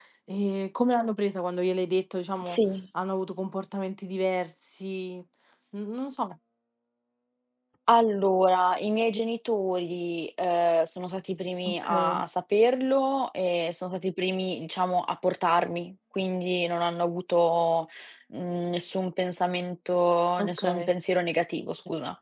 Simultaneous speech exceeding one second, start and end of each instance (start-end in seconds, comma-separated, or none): none